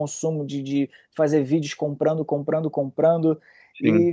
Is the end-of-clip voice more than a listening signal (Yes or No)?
No